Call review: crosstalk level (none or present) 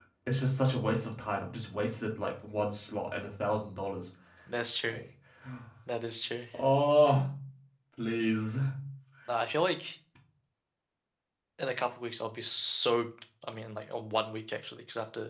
none